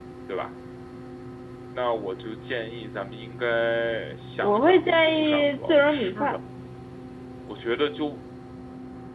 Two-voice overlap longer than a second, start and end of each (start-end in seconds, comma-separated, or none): 4.4-6.4